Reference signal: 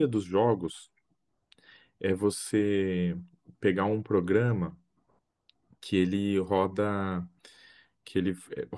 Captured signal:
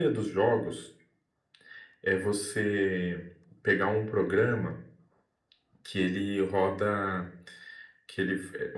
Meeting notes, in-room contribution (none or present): none